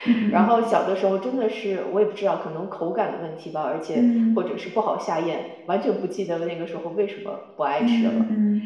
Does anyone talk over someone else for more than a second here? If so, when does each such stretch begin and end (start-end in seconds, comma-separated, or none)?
none